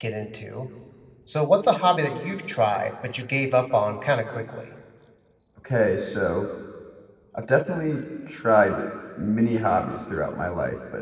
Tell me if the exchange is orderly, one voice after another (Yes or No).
Yes